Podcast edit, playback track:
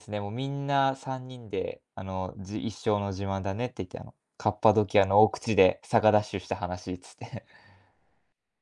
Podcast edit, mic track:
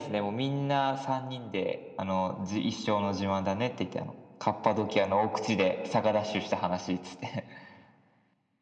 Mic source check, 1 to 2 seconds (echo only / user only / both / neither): echo only